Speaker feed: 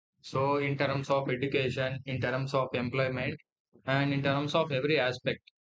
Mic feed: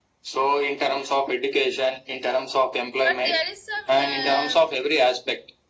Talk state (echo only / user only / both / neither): both